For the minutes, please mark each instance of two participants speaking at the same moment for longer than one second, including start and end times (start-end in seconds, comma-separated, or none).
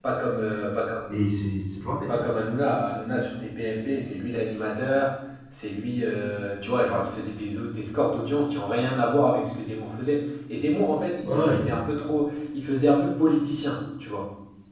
none